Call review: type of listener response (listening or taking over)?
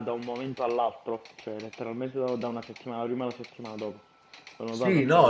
taking over